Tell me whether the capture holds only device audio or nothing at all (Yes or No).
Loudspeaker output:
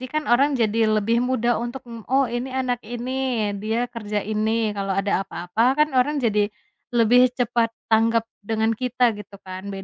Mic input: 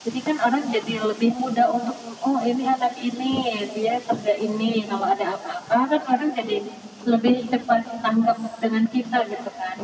Yes